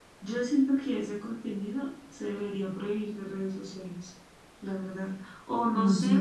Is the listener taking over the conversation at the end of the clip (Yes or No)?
No